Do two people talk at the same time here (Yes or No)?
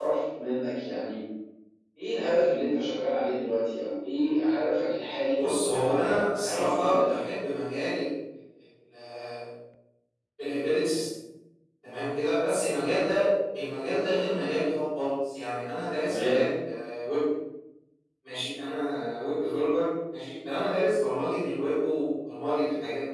Yes